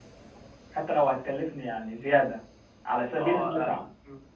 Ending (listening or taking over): taking over